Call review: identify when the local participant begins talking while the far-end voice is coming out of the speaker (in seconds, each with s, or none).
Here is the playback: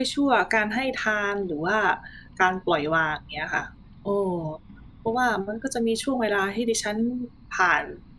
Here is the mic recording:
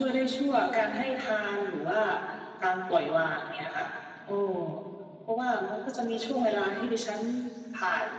none